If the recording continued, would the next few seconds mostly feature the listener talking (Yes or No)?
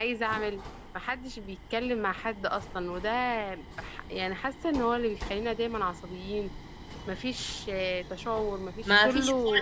Yes